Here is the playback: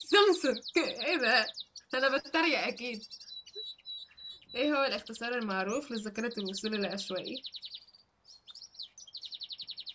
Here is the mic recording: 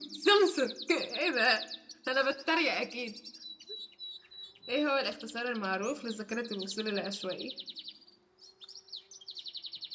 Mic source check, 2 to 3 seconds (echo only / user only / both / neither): echo only